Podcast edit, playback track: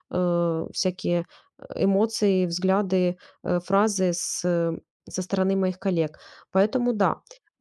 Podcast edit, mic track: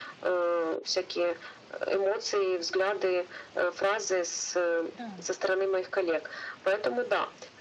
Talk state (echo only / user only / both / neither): both